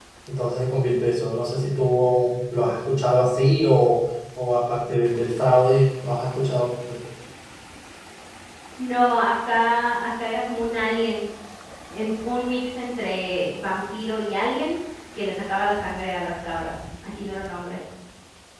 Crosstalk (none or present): none